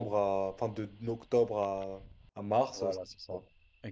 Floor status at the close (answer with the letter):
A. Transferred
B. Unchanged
A